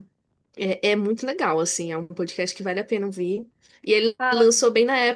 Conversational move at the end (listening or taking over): listening